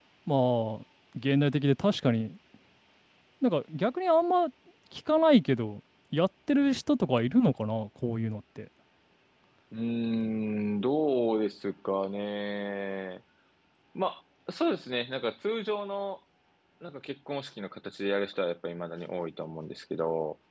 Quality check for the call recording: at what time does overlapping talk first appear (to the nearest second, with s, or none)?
none